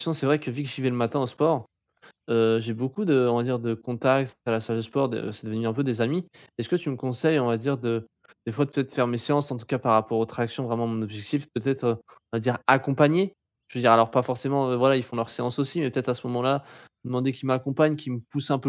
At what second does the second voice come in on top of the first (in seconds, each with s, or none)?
none